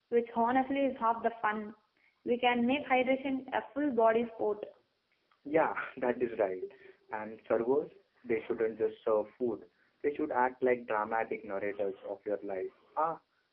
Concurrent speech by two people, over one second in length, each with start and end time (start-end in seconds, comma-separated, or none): none